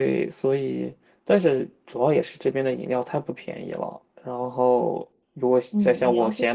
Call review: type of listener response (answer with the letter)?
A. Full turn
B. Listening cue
A